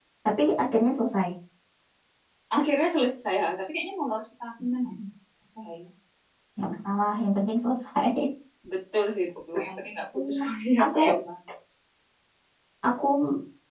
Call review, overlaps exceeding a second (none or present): none